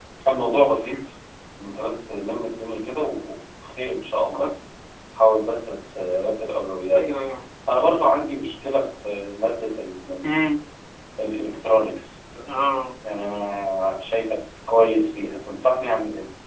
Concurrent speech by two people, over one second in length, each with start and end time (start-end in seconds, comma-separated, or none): none